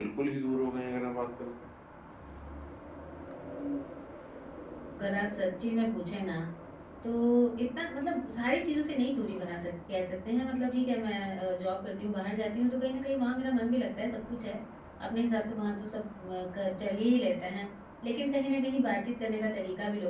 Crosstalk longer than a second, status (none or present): none